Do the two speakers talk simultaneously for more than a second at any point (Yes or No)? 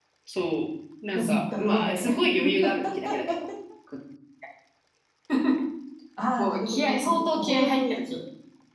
Yes